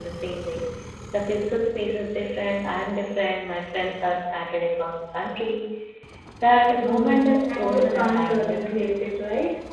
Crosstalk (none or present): present